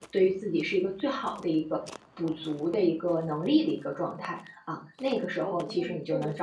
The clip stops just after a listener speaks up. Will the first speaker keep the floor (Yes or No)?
No